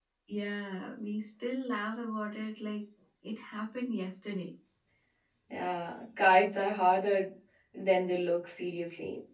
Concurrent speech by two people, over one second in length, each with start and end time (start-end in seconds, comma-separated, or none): none